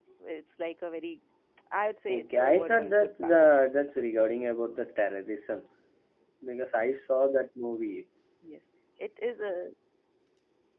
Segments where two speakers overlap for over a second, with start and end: 2.1-3.9

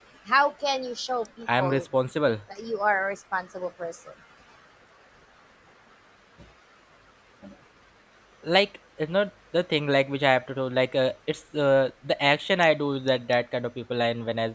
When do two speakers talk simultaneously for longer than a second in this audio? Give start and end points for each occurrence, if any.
none

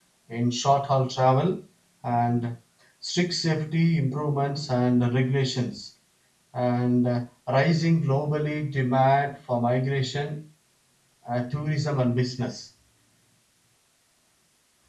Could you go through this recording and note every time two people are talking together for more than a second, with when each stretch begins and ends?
none

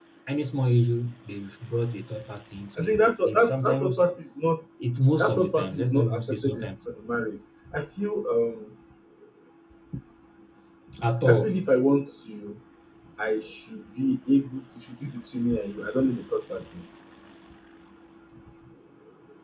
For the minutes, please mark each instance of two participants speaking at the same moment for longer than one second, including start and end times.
2.8-4.1, 5.2-6.7

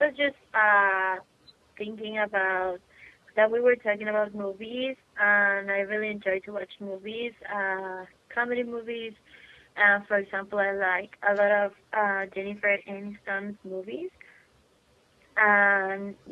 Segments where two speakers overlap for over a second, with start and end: none

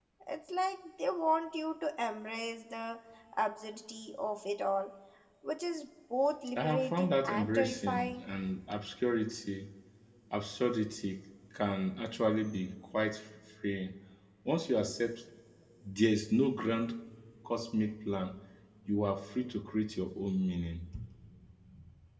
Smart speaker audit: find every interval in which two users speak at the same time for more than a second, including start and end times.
6.6-8.2

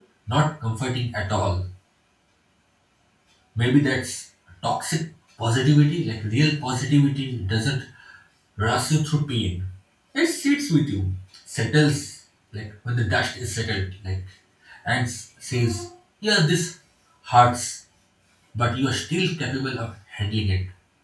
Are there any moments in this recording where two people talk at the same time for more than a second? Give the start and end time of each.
none

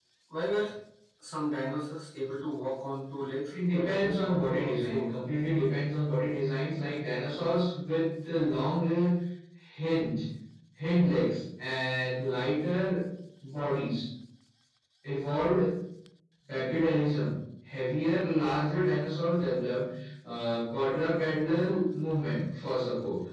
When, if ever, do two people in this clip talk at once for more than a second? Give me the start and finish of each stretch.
3.5-5.1

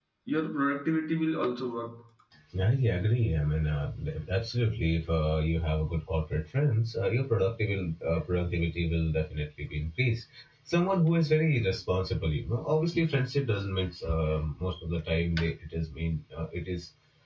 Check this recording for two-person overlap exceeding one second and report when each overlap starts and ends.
none

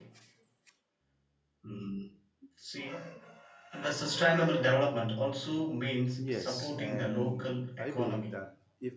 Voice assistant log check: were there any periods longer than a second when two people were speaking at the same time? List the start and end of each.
6.2-8.3

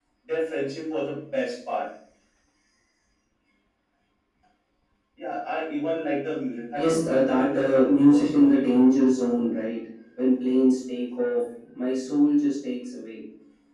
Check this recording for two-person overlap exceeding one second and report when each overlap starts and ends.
6.8-8.6

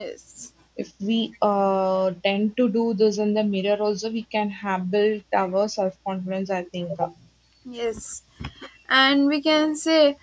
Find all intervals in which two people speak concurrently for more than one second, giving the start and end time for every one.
none

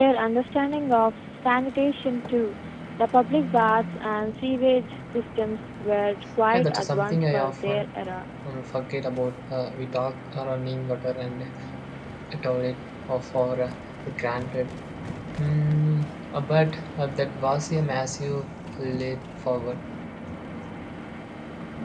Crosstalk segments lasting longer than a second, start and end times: 6.5-7.9

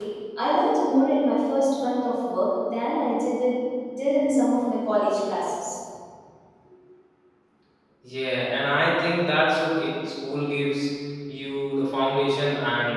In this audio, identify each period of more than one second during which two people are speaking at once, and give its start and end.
none

